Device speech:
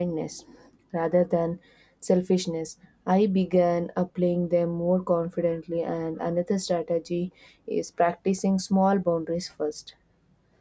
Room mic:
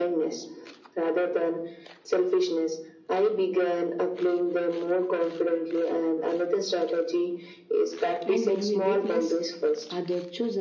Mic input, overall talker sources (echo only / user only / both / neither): both